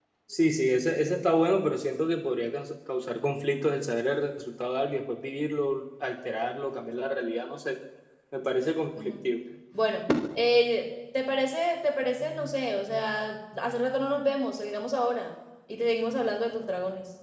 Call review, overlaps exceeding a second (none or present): none